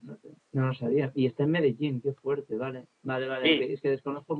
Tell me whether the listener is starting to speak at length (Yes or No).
No